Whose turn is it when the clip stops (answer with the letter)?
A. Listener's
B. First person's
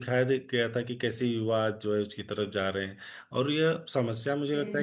B